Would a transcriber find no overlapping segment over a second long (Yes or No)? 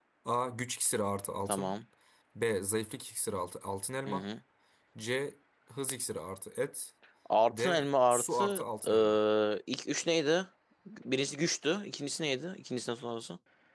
No